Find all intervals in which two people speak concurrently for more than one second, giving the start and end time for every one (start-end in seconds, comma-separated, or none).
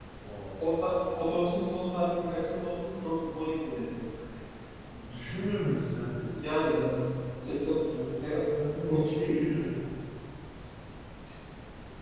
none